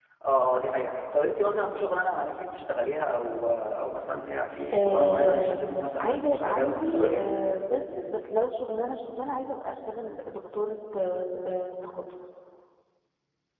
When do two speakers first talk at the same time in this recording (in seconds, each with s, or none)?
4.7 s